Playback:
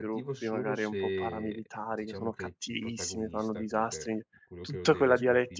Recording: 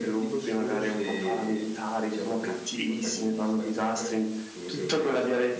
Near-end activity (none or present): none